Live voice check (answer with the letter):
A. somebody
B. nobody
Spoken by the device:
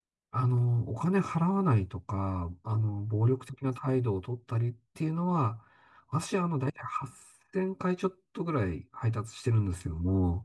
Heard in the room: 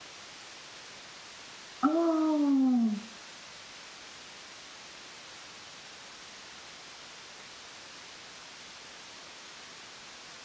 A